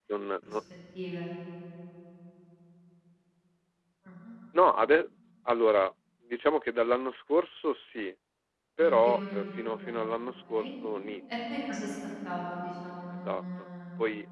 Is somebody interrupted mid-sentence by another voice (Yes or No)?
Yes